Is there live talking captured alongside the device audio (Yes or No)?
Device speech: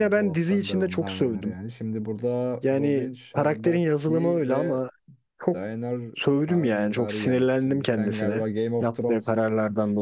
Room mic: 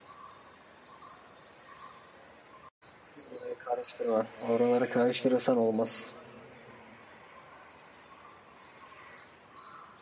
Yes